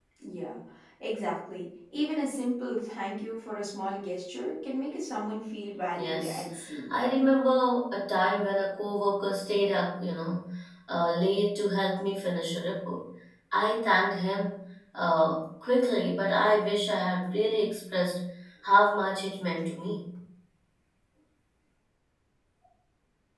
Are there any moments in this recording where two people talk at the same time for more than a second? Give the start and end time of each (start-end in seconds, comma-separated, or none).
none